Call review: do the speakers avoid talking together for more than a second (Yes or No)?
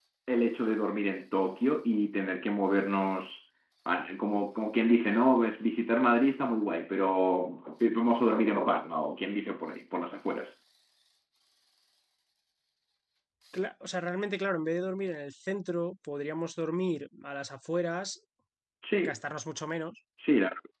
Yes